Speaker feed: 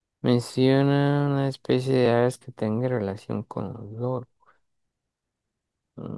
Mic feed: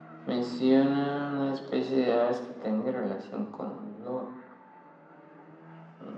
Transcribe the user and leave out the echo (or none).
none